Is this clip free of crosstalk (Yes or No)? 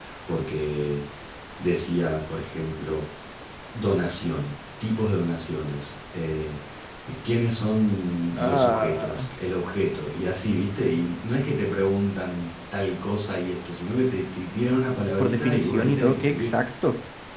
No